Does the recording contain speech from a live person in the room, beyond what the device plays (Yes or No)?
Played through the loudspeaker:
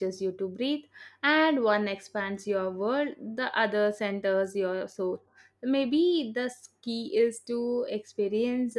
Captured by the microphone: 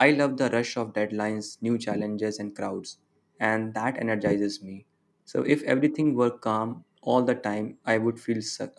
Yes